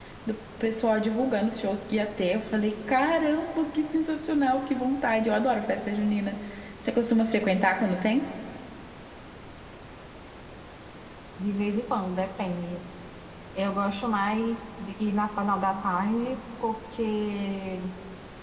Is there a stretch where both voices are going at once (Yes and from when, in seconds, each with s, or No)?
No